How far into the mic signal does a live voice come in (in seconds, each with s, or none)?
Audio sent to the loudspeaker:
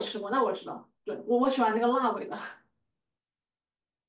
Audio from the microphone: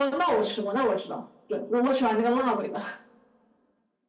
none